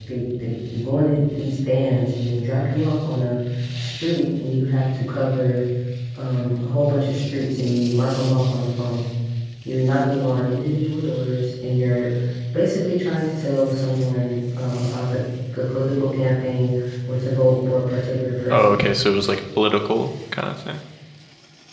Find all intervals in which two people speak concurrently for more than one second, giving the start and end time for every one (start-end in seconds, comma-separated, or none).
none